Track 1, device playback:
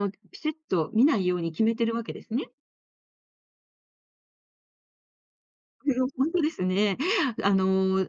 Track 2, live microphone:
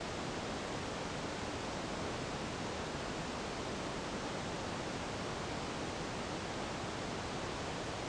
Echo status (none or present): none